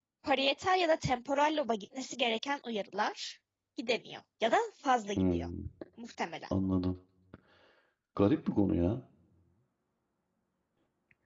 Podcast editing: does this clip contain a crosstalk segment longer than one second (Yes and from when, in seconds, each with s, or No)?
No